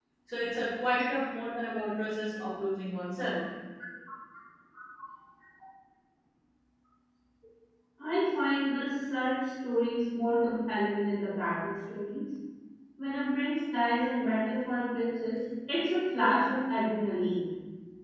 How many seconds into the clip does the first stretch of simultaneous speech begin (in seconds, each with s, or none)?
none